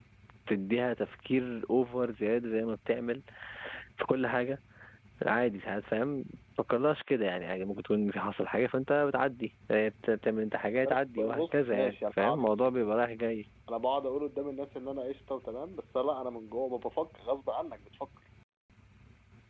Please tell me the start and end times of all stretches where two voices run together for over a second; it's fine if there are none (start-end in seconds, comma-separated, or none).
10.8-12.7